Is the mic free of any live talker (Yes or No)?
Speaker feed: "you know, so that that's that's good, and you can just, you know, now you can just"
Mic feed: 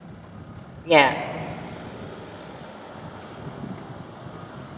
No